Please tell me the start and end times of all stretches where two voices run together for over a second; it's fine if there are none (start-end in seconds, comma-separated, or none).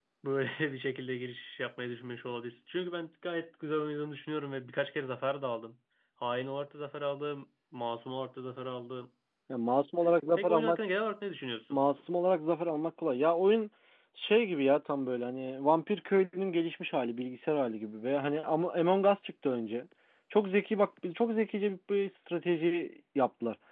none